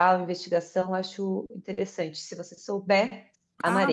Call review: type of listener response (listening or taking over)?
taking over